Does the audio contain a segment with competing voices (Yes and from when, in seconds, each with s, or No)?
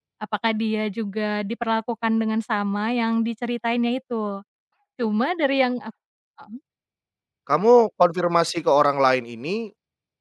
No